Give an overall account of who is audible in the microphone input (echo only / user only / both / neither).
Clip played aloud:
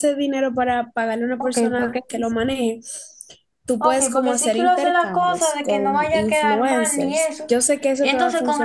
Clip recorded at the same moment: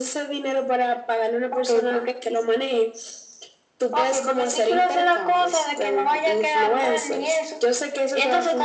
echo only